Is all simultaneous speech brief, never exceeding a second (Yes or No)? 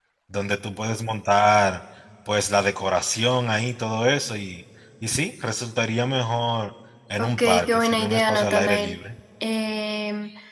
No